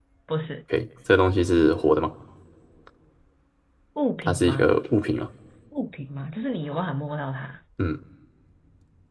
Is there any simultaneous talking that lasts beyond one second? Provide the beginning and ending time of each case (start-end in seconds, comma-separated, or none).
none